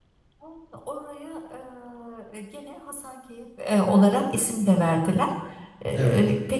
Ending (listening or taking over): listening